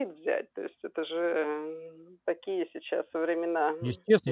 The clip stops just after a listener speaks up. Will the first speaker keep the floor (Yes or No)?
No